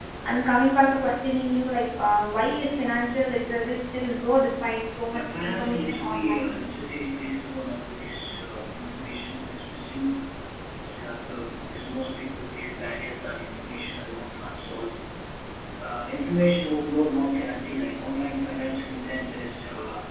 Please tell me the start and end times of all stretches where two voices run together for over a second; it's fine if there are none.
5.1-6.7

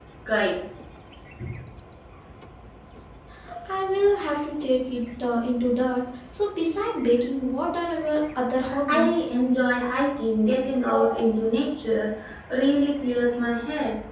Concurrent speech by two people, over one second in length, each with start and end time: none

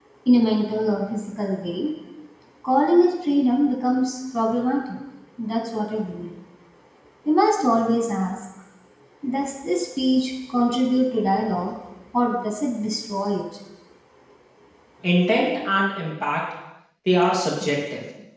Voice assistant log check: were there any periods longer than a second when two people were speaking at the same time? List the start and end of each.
none

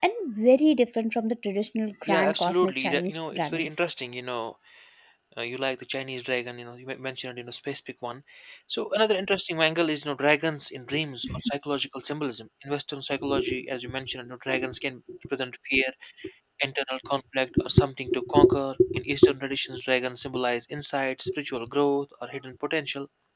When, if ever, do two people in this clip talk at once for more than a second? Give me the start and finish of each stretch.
2.1-3.8

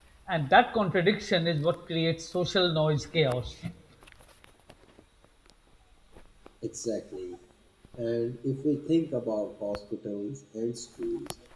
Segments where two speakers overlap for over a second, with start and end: none

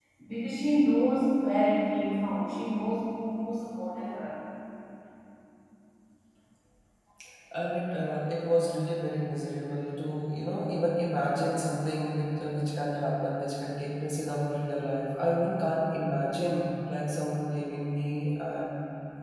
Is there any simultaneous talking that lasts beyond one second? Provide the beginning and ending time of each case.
none

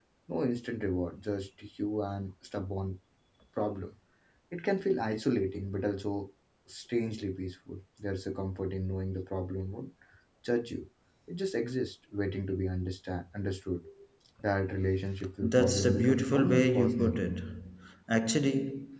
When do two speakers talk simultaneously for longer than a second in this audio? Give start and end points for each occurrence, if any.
15.4-17.2

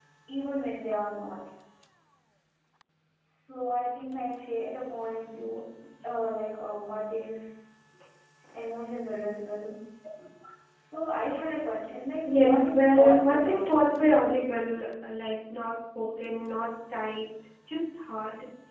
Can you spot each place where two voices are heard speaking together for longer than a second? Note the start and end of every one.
12.3-14.2

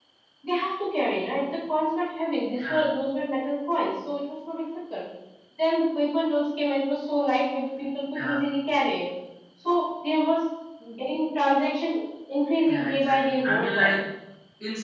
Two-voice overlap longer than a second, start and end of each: 12.7-13.9

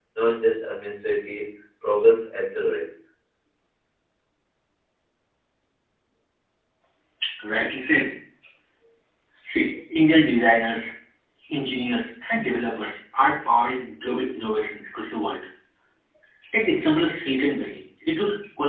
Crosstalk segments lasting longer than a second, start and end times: none

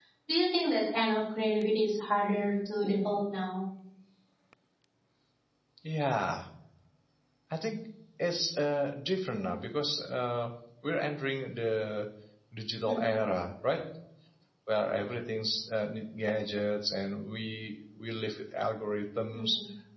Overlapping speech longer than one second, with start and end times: none

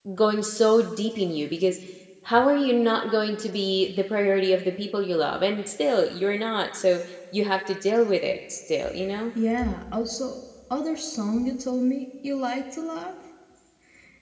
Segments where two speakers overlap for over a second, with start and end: none

